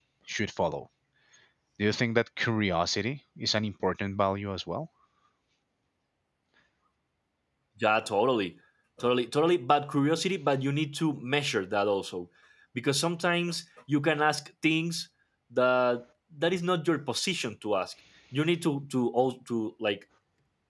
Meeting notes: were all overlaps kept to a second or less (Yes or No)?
Yes